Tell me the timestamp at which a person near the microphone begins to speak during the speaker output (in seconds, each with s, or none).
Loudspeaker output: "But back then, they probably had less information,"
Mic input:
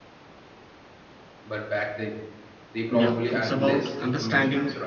2.9 s